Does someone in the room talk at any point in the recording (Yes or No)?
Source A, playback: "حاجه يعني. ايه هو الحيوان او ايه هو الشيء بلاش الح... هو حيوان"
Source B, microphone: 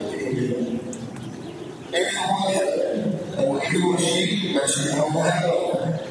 No